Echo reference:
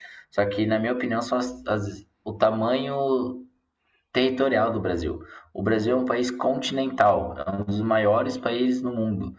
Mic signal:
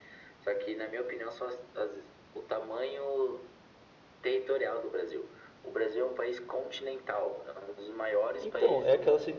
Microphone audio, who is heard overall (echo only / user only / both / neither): both